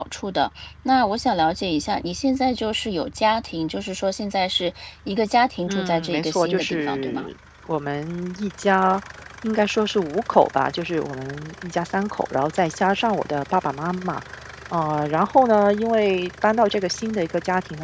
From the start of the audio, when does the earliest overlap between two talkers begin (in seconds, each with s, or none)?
5.7 s